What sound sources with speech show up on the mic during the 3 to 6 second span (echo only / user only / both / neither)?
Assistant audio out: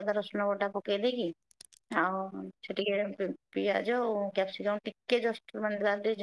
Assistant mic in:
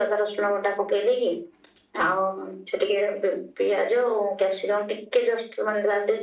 echo only